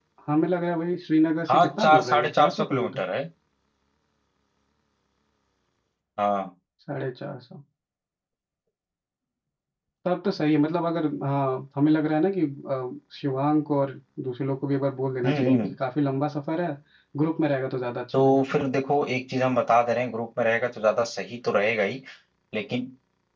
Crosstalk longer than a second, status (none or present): present